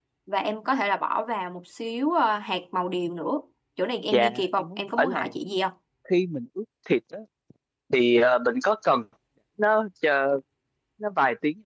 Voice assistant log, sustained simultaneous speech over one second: present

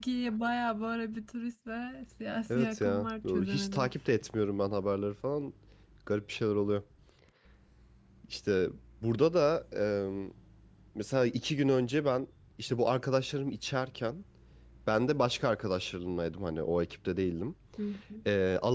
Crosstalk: present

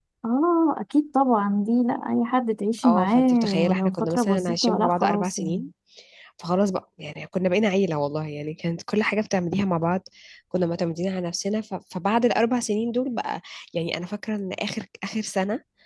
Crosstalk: present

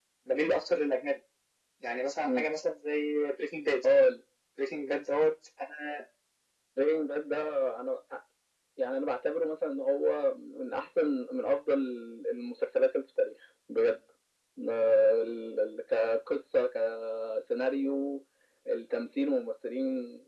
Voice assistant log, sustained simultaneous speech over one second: none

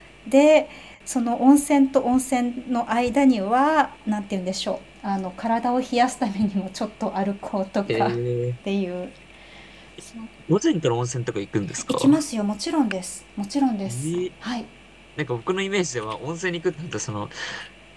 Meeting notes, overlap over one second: none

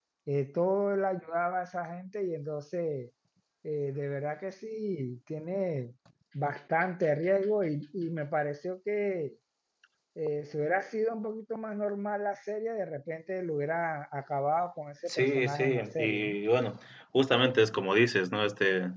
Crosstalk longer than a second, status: present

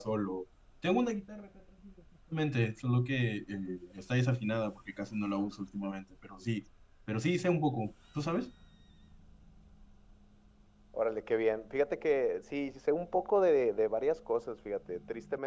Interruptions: none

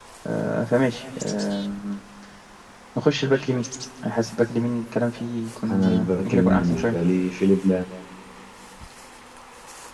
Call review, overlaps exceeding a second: present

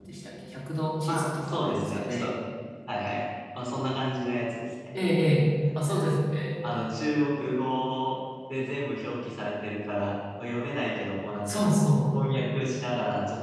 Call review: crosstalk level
present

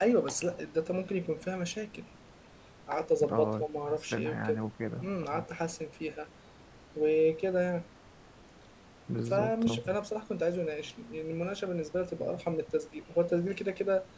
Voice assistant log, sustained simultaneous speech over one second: present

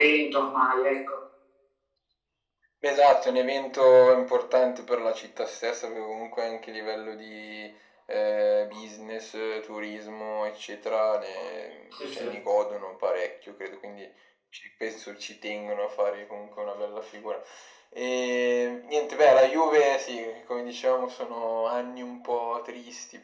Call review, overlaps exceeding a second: none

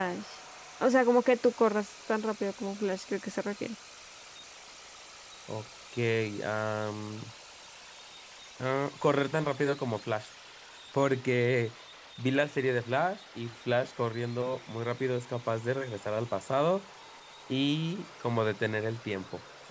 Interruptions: none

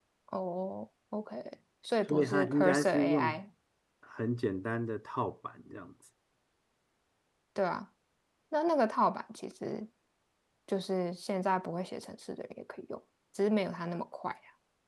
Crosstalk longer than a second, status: present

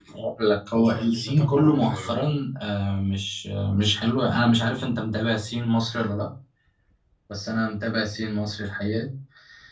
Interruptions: present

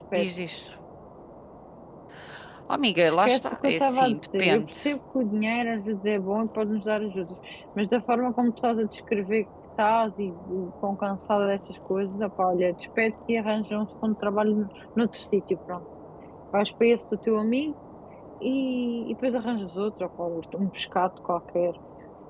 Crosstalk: present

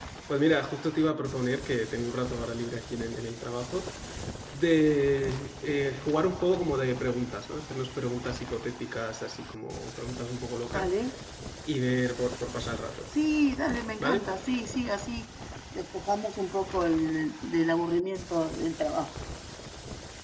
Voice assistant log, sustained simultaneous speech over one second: none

